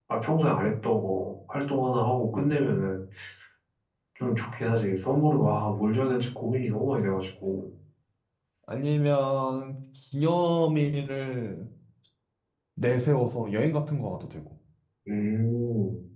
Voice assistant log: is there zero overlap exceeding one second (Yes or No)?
Yes